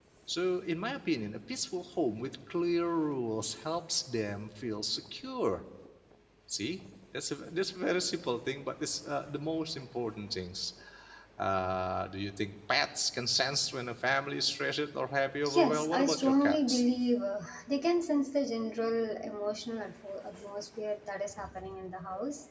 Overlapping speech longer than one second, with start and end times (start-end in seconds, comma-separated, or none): 15.5-16.8